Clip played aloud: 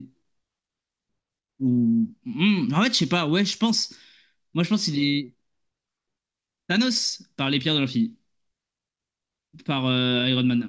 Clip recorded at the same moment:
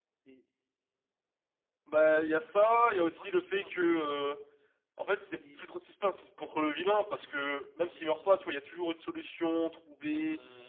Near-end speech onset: 2 s

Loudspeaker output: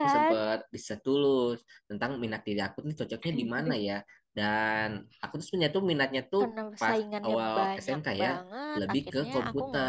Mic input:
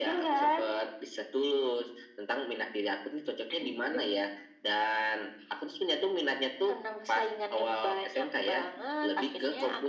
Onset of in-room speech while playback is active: none

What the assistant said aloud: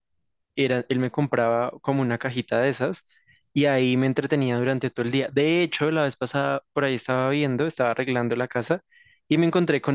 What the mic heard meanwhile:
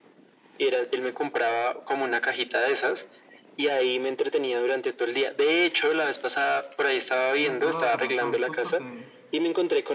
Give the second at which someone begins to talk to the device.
7 s

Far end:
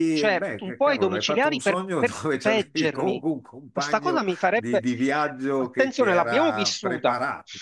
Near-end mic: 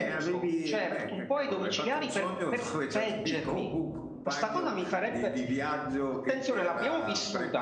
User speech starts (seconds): none

